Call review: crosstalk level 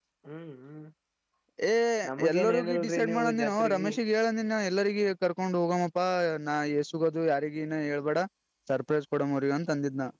present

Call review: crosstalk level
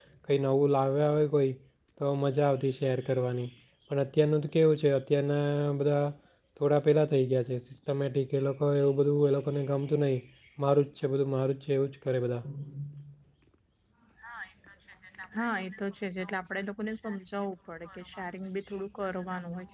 none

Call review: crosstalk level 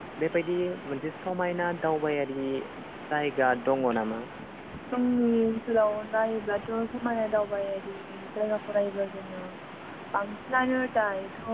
none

